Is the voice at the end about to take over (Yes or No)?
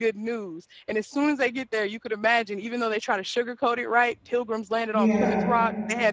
No